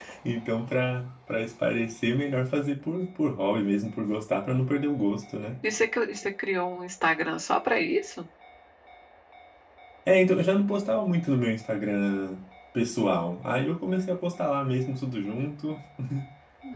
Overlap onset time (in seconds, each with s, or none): none